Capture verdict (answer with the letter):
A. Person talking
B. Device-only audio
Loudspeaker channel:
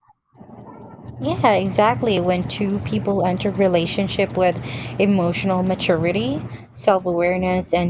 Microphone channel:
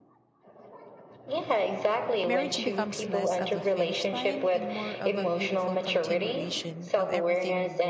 A